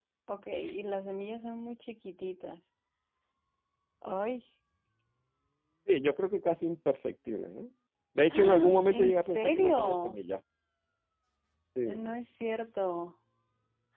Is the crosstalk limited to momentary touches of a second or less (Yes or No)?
No